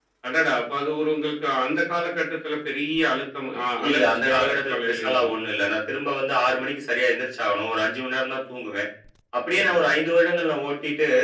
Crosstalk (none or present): present